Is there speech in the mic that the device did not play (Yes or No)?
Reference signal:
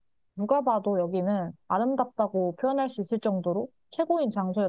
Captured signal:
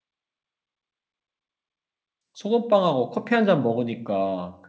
Yes